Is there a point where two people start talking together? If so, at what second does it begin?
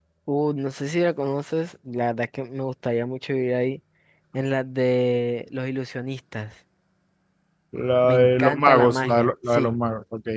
8.0 s

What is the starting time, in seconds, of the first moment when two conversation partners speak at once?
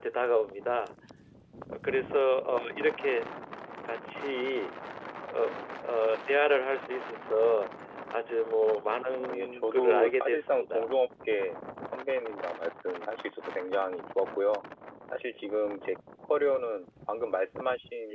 9.2 s

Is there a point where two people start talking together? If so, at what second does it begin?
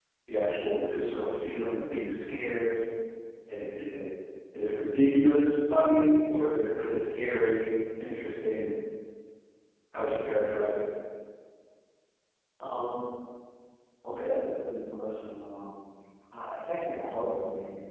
none

